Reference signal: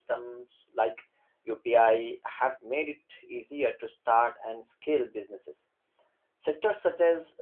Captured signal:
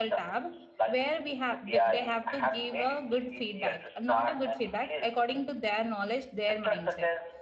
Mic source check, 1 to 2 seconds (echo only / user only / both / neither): both